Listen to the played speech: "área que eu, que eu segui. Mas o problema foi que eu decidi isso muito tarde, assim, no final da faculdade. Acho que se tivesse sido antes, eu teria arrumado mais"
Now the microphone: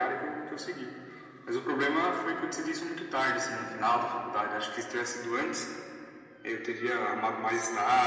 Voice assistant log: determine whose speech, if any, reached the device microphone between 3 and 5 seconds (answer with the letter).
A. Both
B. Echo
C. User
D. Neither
B